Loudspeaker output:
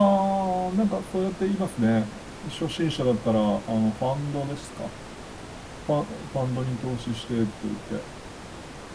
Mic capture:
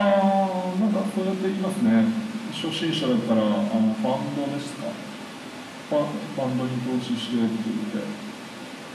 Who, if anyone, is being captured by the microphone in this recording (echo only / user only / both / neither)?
echo only